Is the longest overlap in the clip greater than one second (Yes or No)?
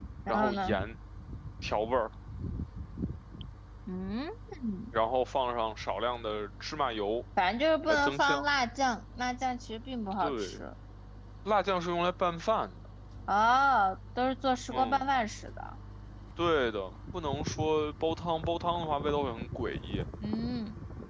No